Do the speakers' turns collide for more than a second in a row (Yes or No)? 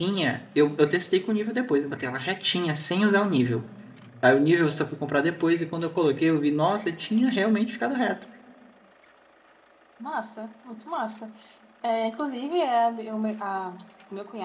No